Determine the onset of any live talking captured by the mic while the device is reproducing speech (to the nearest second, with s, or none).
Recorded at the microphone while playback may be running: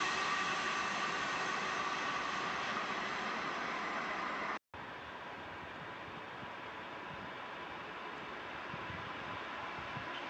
none